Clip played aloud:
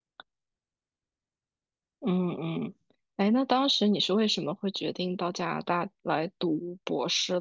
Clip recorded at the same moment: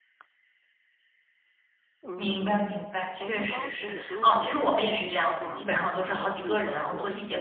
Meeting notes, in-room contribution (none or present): present